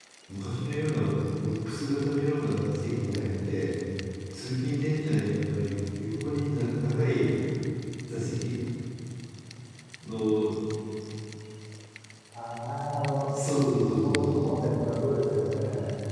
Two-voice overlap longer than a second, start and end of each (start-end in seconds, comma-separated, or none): none